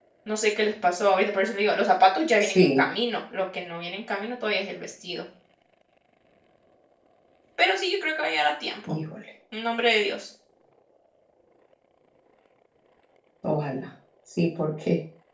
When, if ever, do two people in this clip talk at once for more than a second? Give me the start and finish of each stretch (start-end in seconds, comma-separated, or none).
none